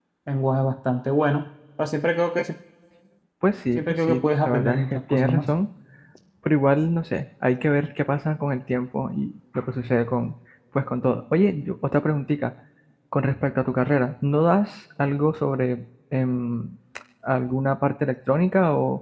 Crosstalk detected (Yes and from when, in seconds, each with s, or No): Yes, from 3.8 s